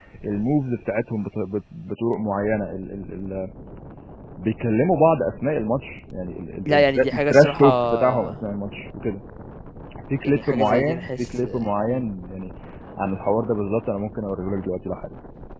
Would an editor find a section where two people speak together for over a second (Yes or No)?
Yes